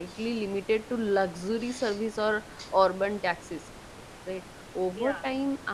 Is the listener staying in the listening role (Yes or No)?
Yes